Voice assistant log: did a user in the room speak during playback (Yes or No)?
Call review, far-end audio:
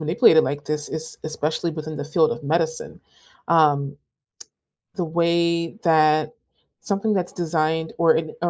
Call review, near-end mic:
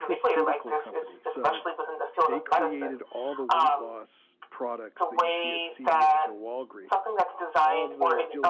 Yes